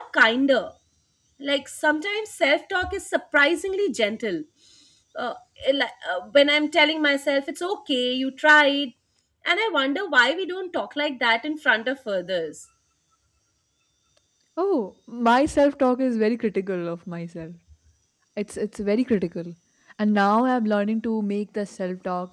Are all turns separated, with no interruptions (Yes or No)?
Yes